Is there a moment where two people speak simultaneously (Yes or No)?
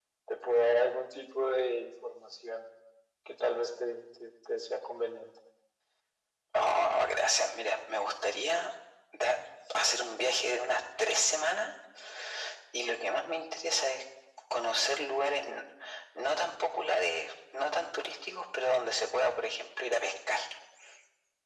No